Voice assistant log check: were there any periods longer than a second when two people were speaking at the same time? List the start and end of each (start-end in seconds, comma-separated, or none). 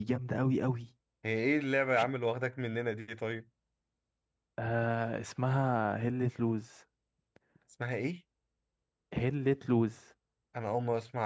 none